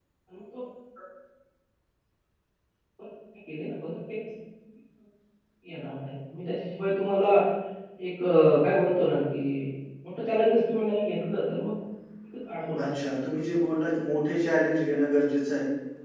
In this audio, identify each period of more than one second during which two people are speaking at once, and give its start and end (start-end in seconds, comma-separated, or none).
none